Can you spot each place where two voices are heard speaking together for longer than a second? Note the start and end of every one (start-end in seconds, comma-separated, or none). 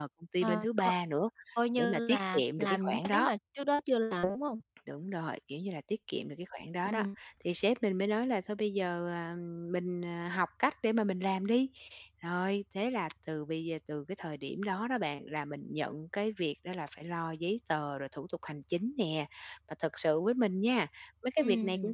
1.8-3.3